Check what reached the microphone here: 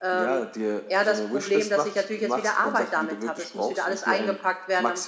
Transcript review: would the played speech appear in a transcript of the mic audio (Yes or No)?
Yes